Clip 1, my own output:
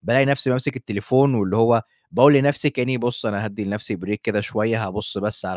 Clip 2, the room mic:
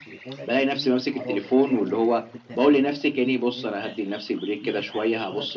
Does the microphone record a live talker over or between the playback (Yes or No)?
Yes